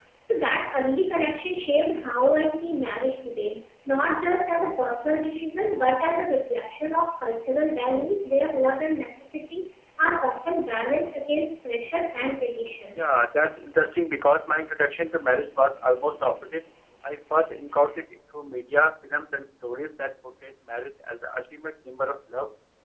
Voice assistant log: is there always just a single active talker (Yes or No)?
Yes